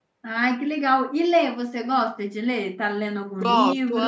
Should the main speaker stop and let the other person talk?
Yes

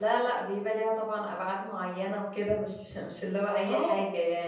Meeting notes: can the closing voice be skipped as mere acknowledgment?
No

